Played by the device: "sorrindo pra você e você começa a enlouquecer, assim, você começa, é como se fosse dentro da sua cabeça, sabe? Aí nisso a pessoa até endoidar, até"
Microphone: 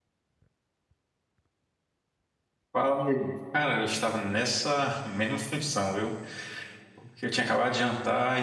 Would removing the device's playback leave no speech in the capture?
No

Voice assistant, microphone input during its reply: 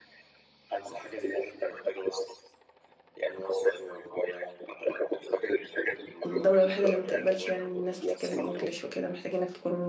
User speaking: Yes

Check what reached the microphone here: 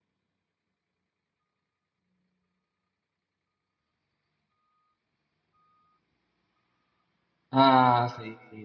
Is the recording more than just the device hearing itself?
Yes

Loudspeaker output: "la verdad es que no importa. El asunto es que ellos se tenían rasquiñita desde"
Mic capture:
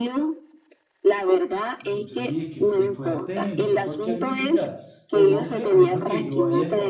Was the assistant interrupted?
Yes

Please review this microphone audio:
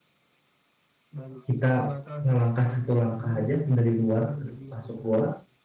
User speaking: Yes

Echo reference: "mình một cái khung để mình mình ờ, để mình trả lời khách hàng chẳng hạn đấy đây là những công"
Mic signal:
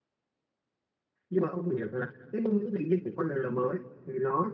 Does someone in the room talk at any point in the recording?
Yes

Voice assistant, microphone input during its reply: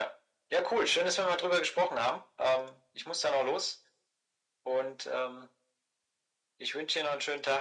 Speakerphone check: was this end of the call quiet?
Yes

